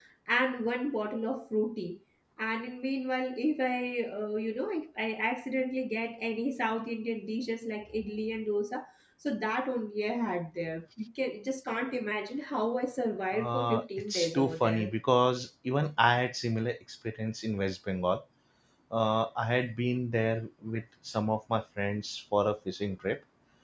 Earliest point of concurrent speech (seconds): 13.3 s

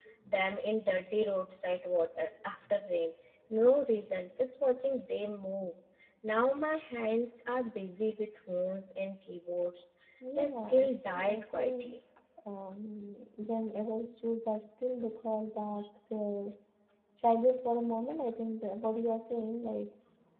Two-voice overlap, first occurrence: 10.4 s

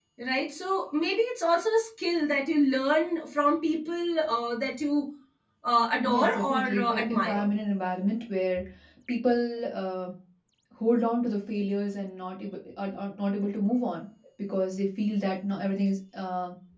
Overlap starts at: 6.0 s

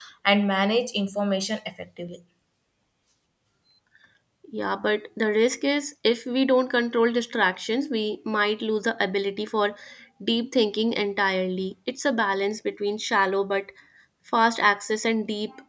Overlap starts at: none

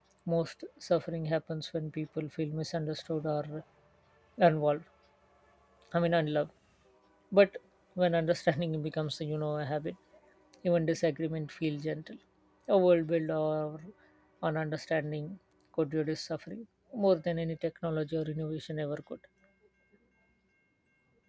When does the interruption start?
none

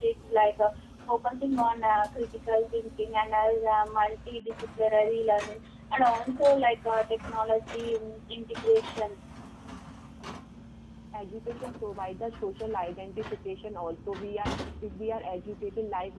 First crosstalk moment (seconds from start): none

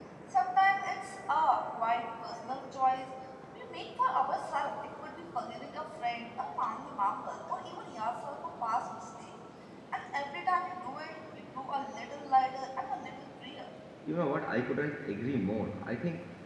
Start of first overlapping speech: none

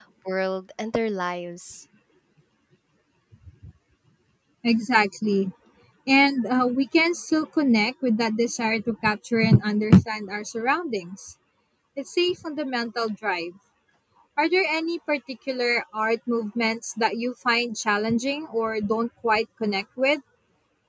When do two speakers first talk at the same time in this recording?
none

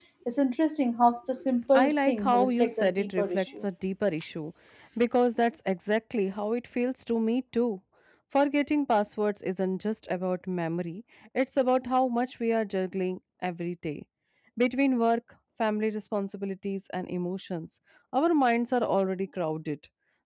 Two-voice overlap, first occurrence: 1.7 s

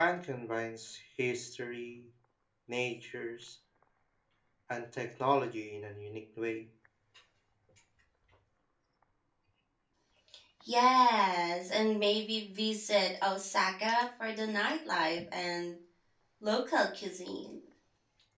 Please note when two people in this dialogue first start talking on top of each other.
none

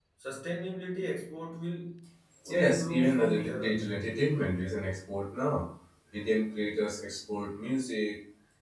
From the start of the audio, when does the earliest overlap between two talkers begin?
2.5 s

